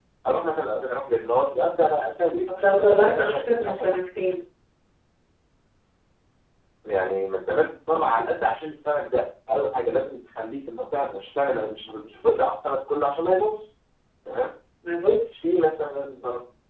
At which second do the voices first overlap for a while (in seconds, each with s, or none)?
2.5 s